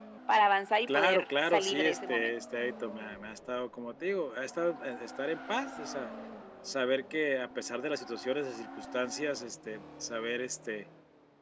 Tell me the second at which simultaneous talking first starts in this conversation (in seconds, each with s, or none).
0.9 s